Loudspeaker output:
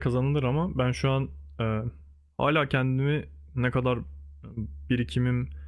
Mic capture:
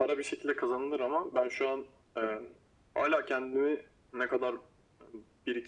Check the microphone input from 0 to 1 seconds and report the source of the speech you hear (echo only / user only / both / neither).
echo only